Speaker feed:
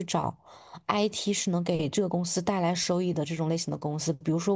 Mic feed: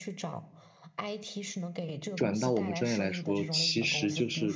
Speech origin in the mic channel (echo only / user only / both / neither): both